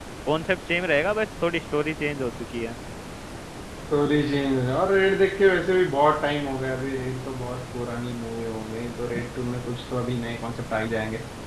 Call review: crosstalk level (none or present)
none